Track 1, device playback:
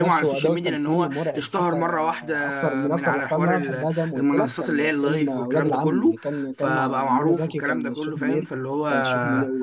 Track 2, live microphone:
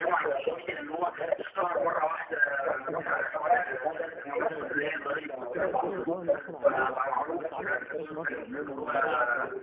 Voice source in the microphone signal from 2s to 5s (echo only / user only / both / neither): both